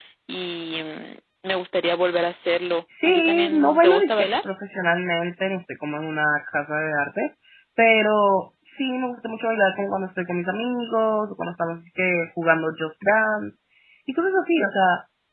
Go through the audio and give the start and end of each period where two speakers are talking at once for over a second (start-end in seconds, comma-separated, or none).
3.0-4.3